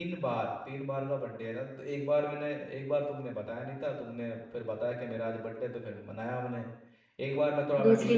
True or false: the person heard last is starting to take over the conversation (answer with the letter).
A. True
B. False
B